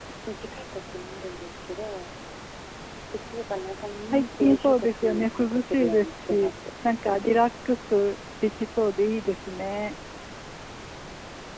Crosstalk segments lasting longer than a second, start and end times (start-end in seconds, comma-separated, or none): 4.0-6.5